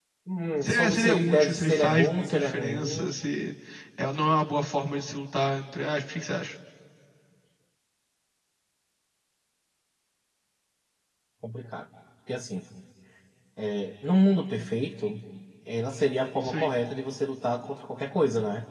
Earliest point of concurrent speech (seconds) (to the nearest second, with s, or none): 1 s